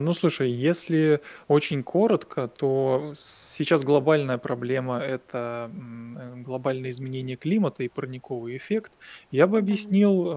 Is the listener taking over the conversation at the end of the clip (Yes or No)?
No